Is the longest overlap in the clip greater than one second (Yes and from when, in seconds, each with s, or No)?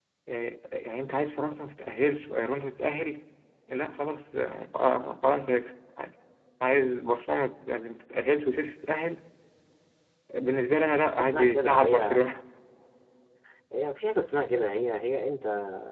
Yes, from 10.8 s